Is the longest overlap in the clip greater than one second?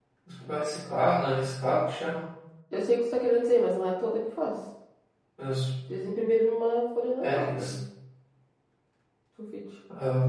No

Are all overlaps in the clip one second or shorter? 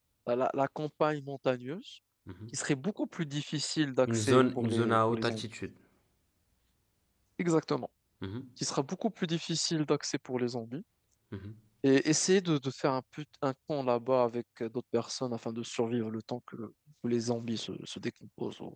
No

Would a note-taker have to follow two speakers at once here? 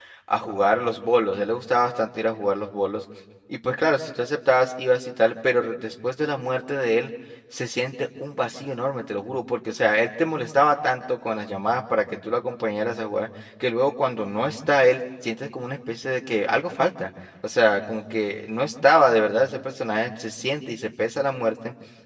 No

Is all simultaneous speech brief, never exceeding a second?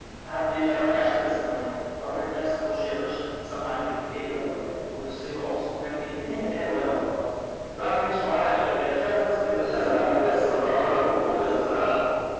No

